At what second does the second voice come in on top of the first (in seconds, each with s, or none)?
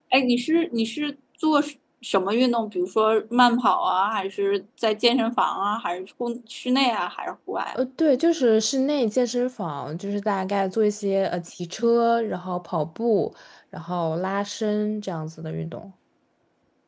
none